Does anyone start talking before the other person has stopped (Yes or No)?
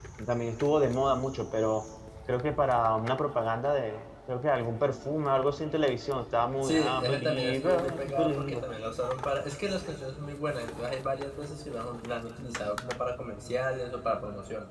Yes